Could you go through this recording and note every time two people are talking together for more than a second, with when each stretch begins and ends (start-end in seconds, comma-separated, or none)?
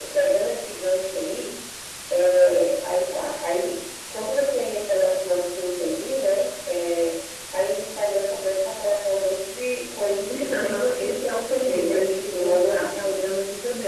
10.0-13.1